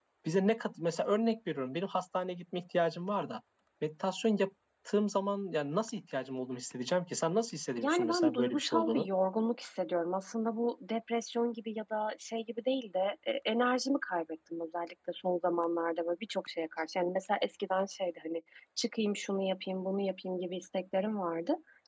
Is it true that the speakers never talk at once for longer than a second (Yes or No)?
No